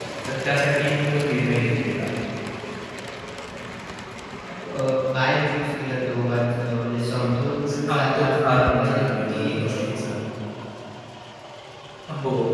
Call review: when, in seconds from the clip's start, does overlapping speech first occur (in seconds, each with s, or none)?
7.7 s